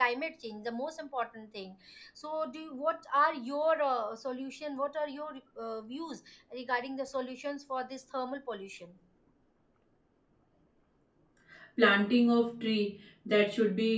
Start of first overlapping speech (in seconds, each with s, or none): none